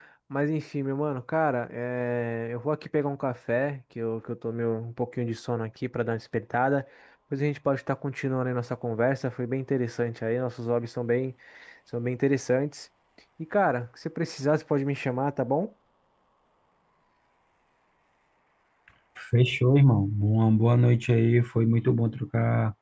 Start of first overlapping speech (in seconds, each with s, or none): none